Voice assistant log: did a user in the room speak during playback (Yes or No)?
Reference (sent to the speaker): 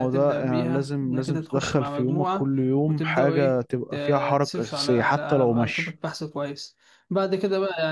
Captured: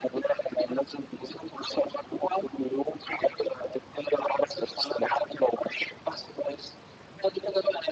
No